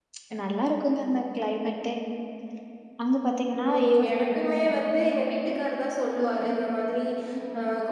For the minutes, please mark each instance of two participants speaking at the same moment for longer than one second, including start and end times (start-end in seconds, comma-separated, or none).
none